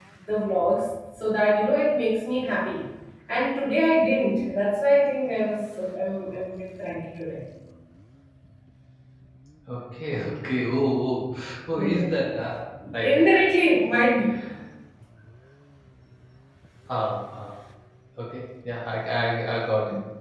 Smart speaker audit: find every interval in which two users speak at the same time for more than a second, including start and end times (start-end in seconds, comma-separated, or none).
none